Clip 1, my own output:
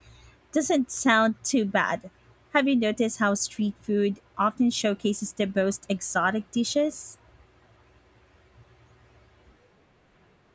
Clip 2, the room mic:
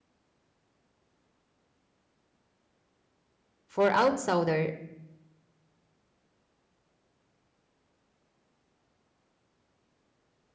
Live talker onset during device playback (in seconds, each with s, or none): 3.7 s